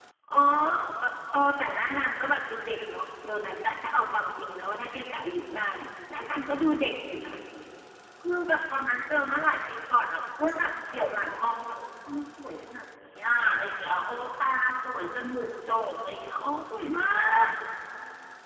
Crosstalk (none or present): none